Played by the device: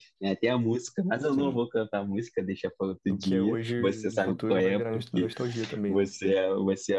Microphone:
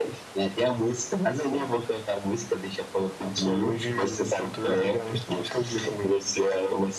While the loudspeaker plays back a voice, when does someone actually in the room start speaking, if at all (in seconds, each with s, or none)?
none